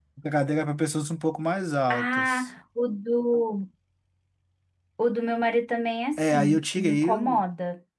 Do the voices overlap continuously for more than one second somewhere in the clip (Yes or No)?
Yes